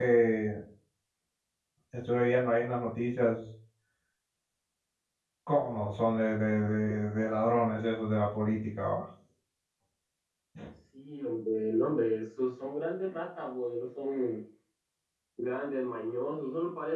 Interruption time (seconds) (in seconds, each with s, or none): none